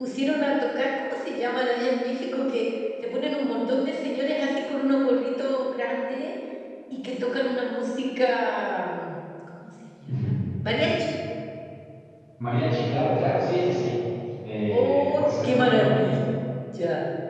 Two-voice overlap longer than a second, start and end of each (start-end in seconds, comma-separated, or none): 14.7-16.2